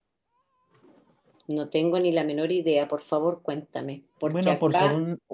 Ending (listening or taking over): taking over